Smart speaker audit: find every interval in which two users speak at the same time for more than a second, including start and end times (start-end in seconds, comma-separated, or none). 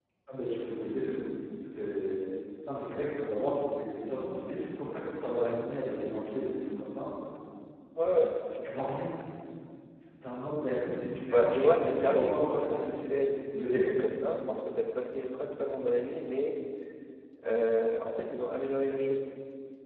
11.3-12.7